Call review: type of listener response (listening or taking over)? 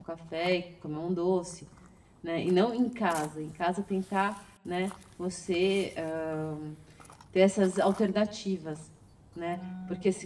listening